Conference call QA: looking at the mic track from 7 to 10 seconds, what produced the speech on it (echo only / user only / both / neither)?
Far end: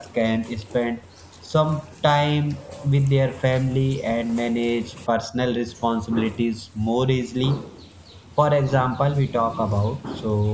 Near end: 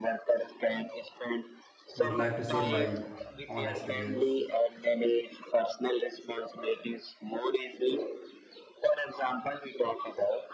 echo only